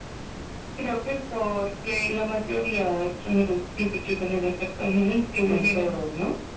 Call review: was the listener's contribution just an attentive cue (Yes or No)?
No